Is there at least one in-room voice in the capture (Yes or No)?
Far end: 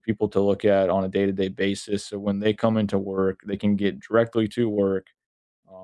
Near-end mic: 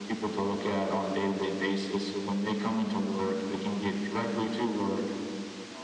No